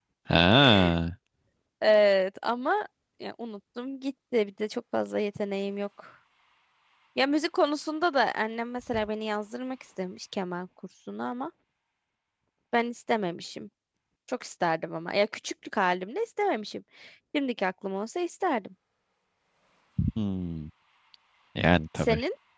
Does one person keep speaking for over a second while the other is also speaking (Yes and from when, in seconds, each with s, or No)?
No